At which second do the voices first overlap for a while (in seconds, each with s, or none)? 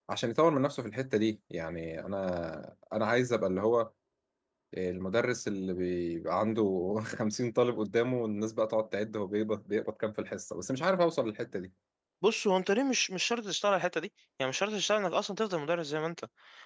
none